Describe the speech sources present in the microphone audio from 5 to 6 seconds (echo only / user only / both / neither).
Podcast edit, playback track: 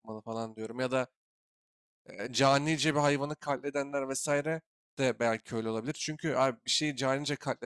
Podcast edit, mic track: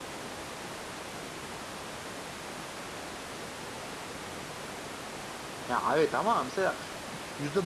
user only